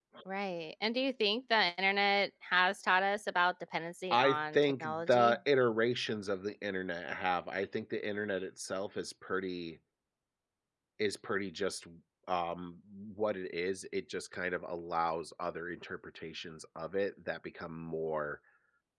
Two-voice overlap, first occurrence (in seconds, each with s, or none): 4.1 s